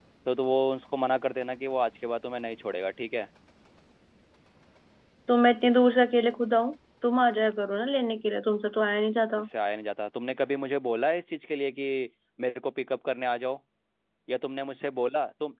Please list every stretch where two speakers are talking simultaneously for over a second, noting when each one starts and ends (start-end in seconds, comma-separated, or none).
none